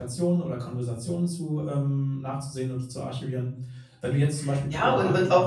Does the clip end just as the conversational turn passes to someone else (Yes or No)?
Yes